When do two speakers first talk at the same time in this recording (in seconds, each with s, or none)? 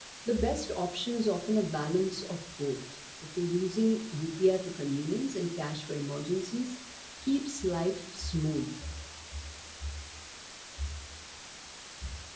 none